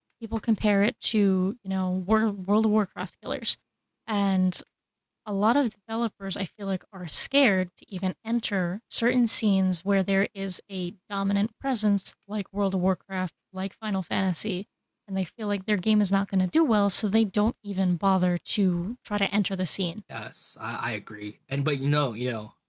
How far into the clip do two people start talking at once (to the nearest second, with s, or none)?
none